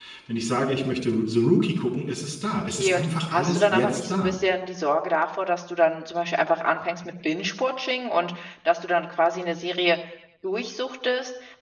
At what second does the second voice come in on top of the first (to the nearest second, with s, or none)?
3 s